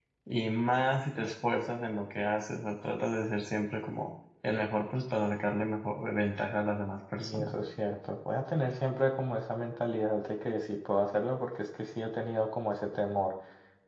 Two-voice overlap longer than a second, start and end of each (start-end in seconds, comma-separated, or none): none